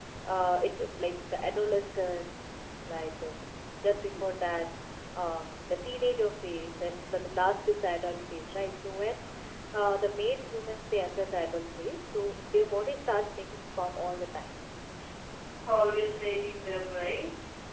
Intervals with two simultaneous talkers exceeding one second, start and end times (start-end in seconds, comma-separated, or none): none